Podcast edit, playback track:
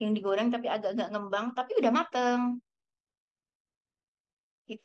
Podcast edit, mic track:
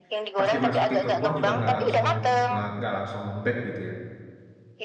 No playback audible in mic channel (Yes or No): No